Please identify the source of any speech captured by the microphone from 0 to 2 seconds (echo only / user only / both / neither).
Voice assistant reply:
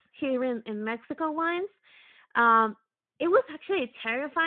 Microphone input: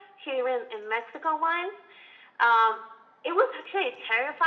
echo only